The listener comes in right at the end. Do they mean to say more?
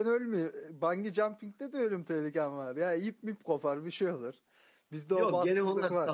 Yes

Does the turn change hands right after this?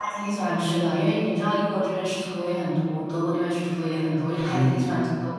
Yes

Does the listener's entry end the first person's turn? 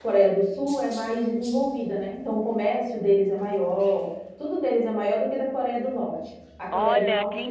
Yes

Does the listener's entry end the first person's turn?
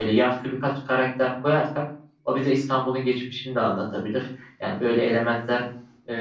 No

